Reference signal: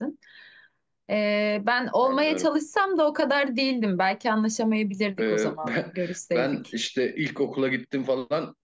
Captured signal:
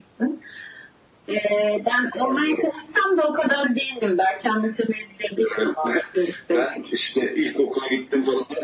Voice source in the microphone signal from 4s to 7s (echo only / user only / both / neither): echo only